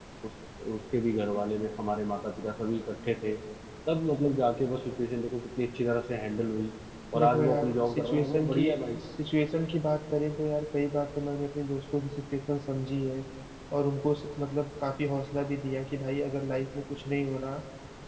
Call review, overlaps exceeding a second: present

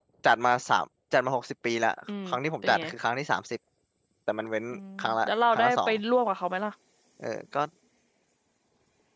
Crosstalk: present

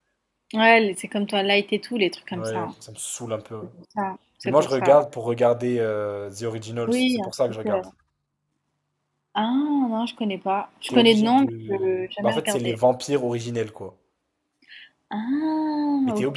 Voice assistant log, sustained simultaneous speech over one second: present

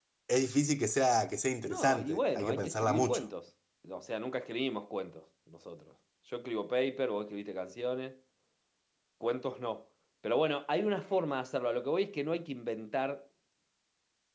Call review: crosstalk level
present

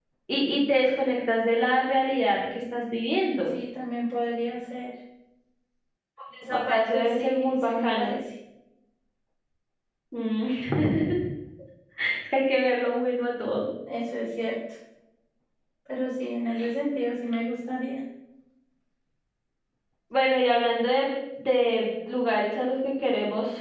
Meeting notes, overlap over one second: present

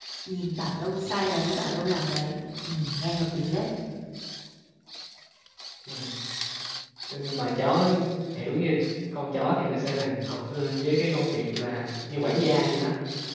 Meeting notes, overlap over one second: none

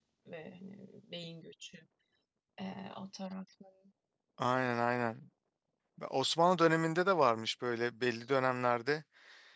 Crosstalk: none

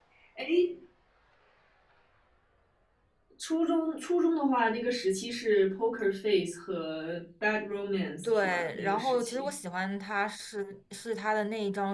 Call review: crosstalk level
present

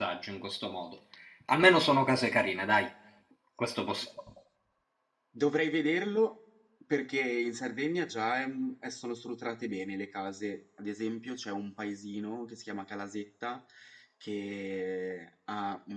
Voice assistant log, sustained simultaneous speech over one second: none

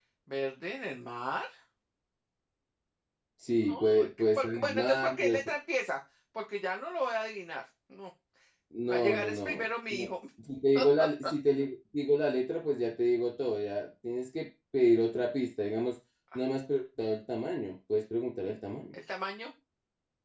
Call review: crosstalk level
present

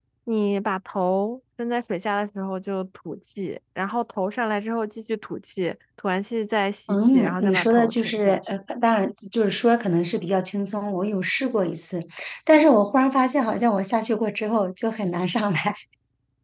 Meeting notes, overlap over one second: present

